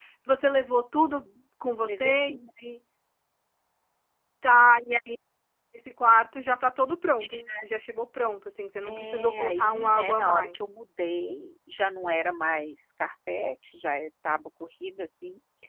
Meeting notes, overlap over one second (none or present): present